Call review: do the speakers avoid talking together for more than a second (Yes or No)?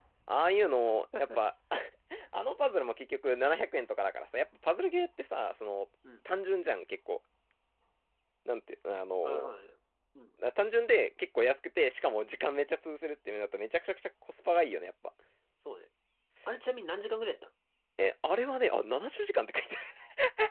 Yes